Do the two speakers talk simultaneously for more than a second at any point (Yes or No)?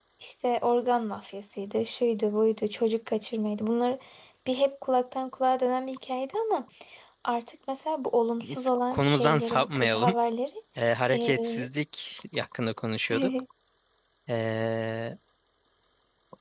Yes